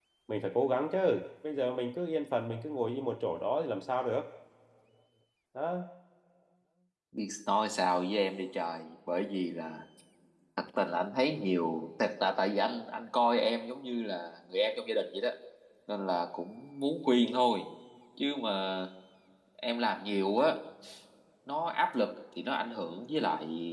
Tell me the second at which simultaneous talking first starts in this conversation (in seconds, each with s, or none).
none